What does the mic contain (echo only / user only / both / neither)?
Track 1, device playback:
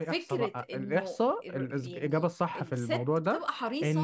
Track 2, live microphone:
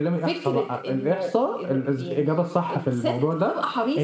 echo only